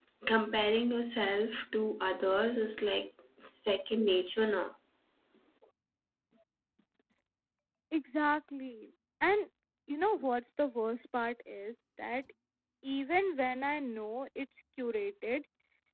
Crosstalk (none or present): none